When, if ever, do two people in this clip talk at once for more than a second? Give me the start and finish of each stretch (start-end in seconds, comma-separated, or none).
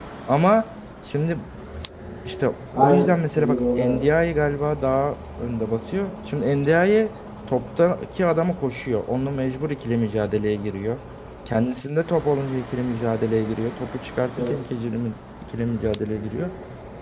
2.8-4.0